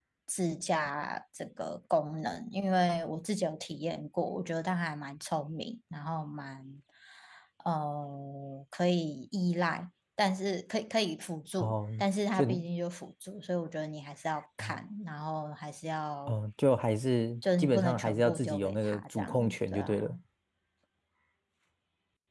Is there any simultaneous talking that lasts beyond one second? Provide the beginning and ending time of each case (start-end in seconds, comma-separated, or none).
17.6-20.2